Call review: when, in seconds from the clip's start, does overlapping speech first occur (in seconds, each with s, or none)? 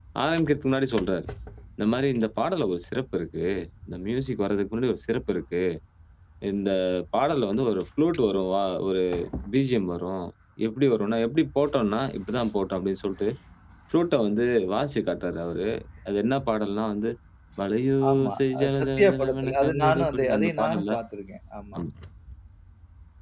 18.1 s